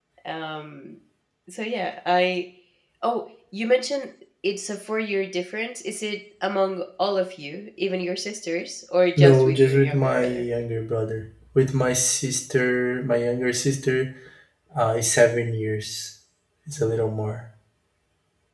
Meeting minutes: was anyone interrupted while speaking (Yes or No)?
Yes